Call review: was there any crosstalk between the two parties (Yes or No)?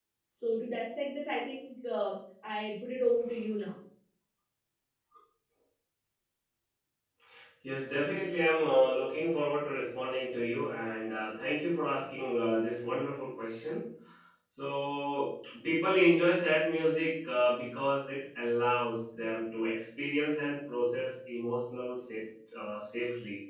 No